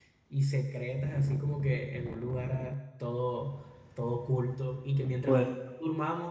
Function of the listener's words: listening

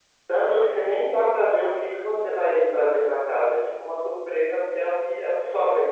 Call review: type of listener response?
taking over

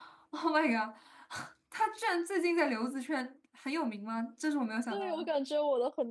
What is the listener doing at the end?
taking over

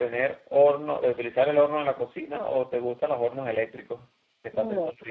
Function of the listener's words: taking over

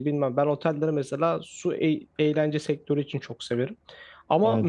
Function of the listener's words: listening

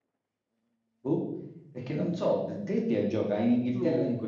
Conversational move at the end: listening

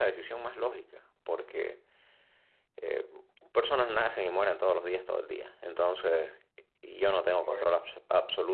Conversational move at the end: listening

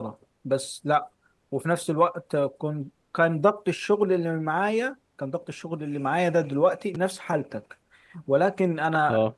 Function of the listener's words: listening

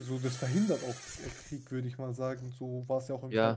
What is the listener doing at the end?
taking over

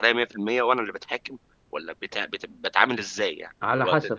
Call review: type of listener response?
taking over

